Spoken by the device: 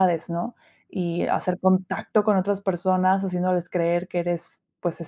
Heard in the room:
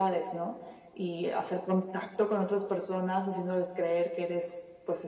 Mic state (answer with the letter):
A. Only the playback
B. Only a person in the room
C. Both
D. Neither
A